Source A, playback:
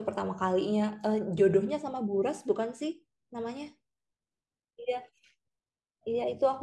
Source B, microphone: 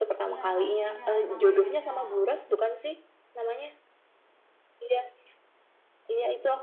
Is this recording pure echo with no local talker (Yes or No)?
No